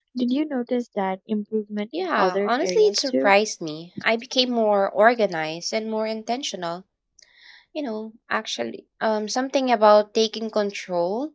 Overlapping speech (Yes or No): Yes